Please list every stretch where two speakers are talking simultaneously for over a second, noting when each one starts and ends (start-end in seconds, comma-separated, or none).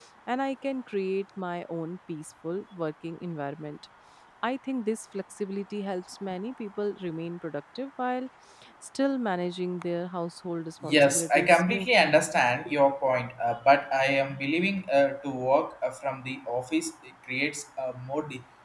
10.8-12.2